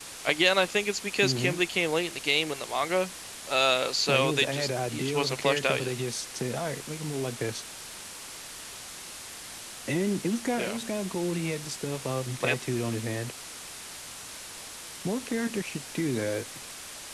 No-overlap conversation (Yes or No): No